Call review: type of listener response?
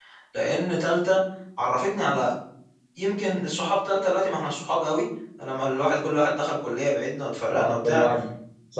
taking over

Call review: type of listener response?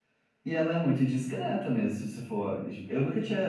taking over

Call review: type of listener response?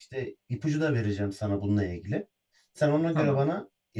listening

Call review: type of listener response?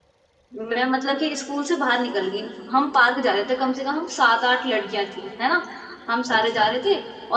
listening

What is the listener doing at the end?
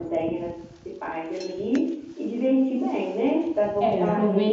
taking over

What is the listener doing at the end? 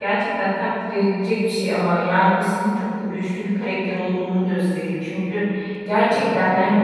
listening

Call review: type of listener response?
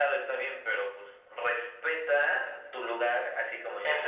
taking over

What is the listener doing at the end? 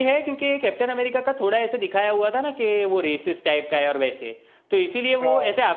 listening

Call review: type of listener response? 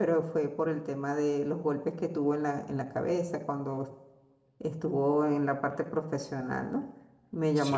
listening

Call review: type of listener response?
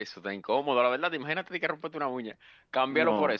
listening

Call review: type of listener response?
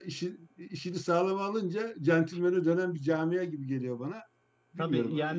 taking over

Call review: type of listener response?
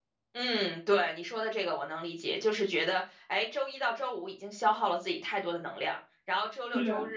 listening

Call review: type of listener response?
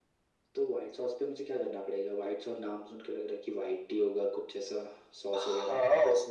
taking over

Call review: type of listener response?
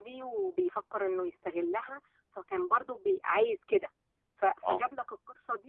listening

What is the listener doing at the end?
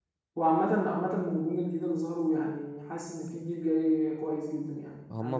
taking over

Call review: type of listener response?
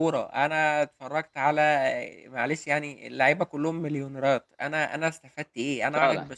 listening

